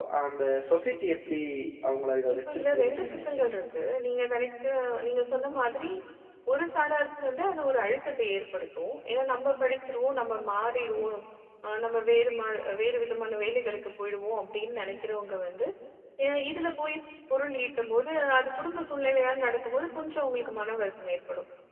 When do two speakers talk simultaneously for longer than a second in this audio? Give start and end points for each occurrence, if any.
2.3-3.5

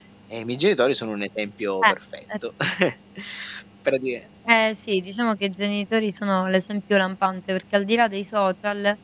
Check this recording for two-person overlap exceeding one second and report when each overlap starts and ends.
none

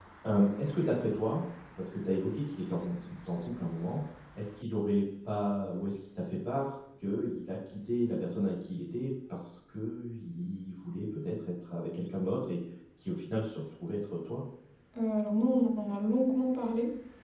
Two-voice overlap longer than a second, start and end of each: none

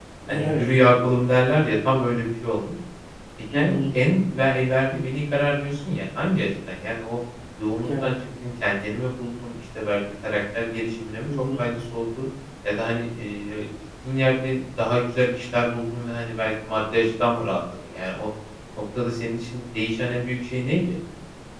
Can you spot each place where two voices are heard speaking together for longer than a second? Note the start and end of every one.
none

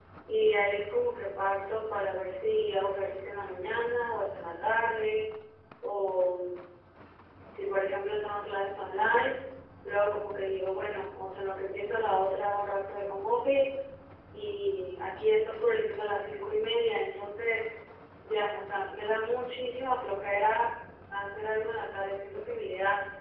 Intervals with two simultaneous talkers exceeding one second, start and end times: none

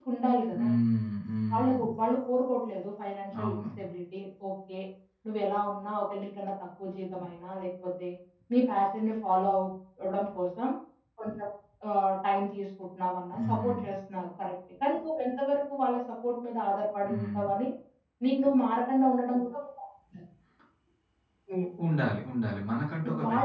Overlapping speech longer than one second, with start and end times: none

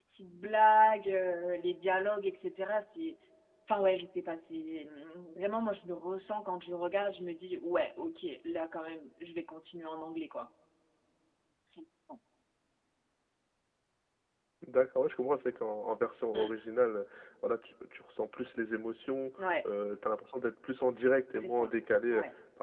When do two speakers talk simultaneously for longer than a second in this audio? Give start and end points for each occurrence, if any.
none

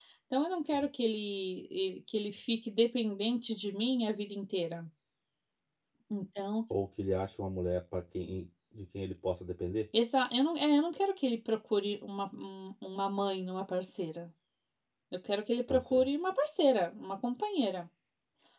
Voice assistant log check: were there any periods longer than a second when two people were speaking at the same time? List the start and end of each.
none

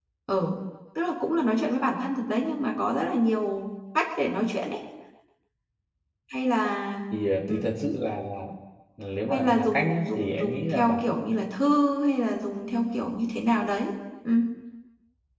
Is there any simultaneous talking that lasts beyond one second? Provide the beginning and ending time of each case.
9.3-11.2

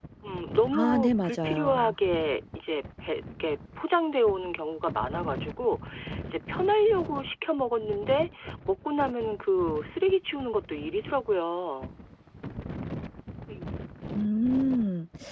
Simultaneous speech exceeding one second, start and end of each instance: 0.7-1.9

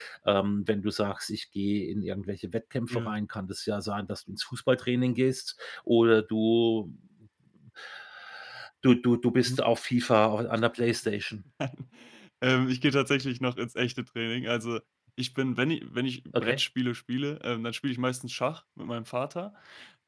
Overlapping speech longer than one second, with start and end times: none

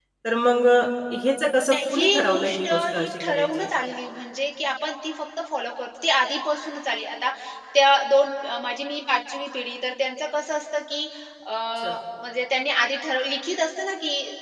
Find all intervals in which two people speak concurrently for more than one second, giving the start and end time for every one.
1.6-3.7

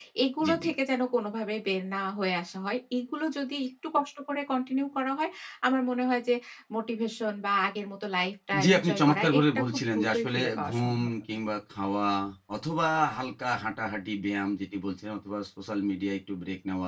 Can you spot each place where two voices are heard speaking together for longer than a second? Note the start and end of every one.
8.6-11.1

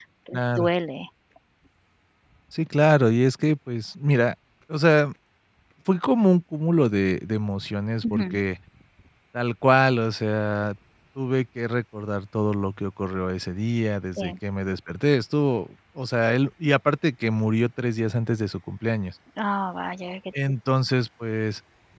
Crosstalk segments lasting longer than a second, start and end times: none

